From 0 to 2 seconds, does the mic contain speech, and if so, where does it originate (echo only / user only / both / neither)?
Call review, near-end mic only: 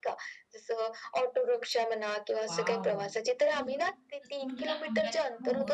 echo only